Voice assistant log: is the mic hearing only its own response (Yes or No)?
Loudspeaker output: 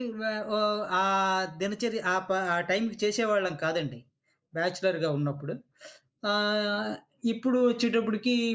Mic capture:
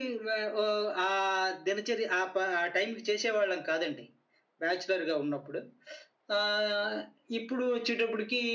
Yes